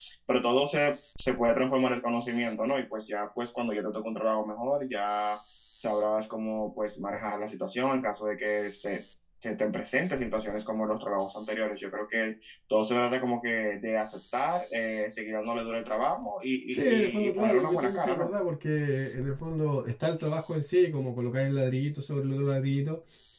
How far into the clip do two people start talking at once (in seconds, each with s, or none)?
16.7 s